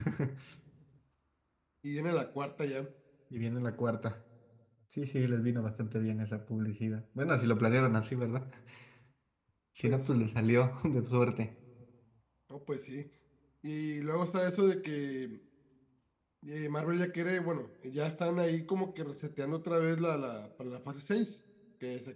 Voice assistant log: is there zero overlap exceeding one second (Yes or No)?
Yes